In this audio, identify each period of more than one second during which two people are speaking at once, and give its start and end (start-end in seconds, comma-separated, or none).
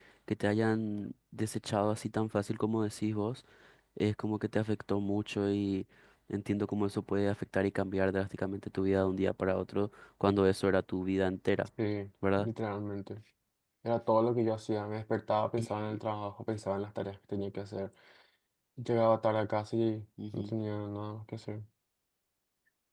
none